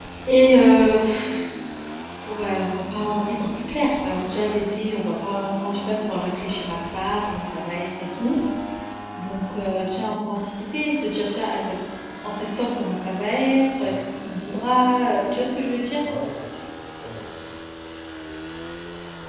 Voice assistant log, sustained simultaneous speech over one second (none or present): none